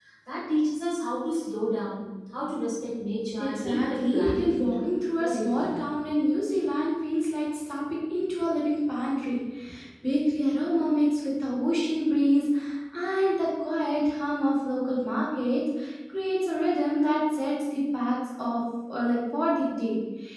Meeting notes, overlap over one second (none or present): present